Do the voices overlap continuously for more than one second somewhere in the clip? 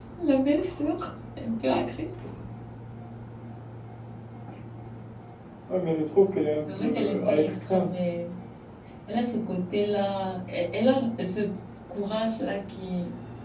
Yes, from 6.7 s

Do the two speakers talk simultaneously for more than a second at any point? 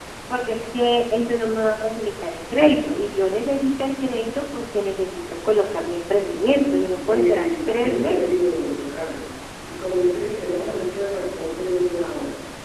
Yes, from 7.0 s

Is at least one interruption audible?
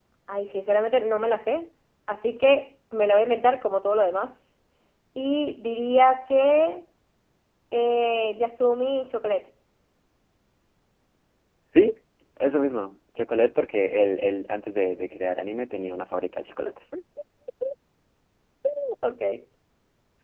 No

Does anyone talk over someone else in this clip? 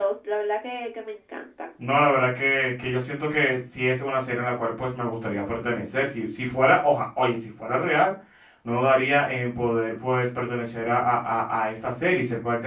No

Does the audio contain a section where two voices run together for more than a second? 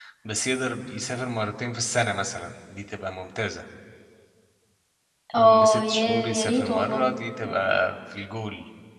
Yes, from 5.4 s

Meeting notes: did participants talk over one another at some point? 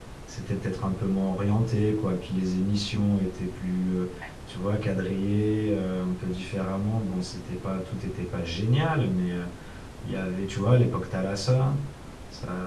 No

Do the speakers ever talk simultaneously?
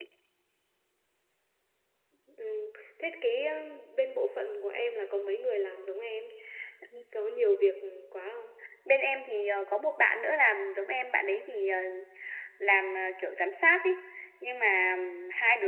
No

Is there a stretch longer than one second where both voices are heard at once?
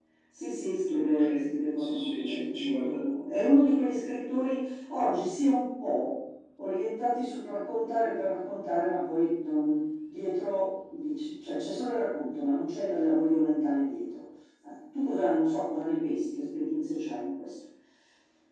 Yes, from 0.9 s

